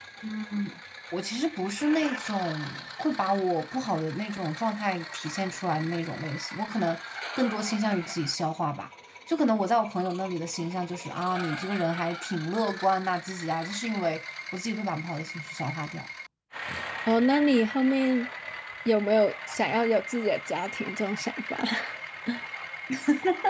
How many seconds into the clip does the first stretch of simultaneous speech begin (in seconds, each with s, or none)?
none